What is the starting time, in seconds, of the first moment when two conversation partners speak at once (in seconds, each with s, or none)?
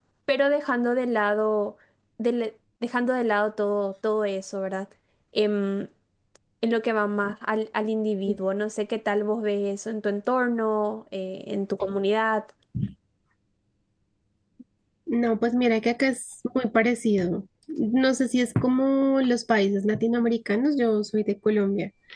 none